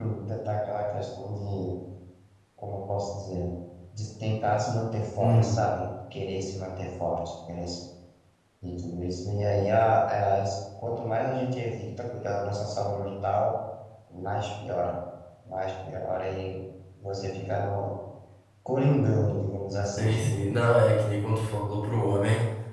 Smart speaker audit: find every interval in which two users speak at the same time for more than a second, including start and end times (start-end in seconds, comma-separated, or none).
none